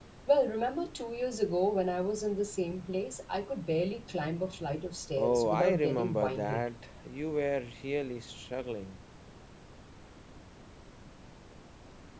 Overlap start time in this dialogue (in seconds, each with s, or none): 5.2 s